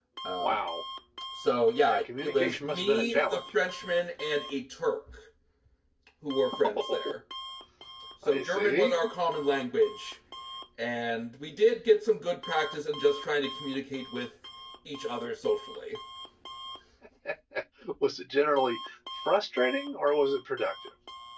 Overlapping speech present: Yes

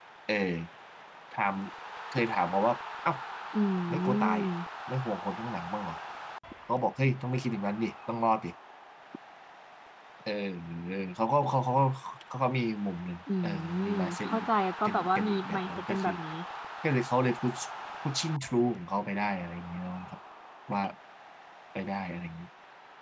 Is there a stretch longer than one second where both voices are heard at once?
Yes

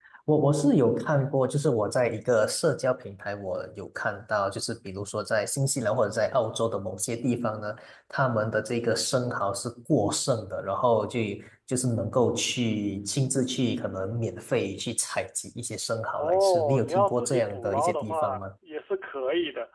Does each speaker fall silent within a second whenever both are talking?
No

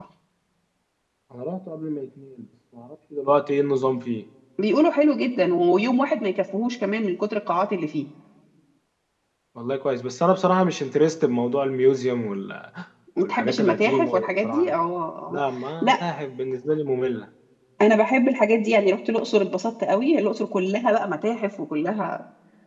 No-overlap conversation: No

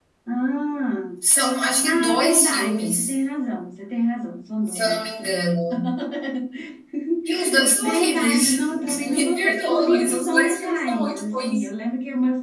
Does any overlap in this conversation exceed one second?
Yes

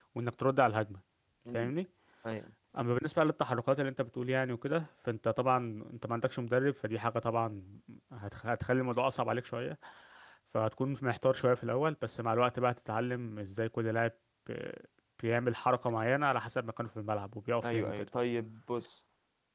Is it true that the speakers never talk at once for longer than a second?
Yes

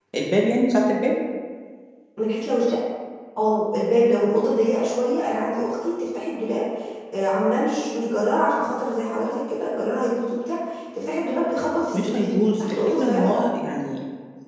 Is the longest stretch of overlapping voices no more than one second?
No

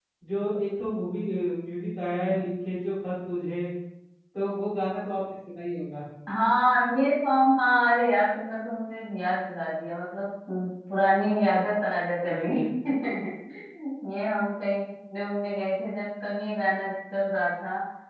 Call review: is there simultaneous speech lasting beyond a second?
No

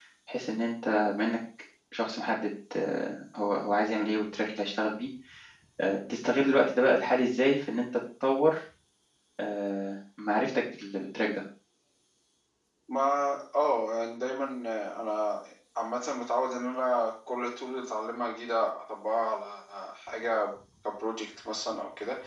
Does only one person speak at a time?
Yes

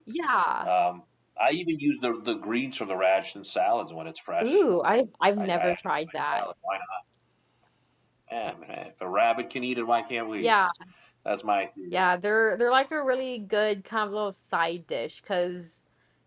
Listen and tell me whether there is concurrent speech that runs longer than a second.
No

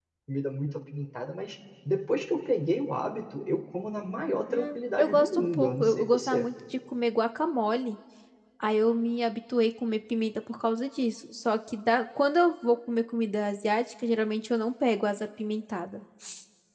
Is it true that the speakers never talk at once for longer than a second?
No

